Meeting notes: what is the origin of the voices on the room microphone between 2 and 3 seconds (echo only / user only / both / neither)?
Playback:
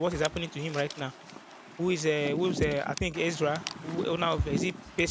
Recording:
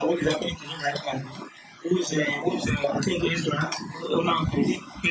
echo only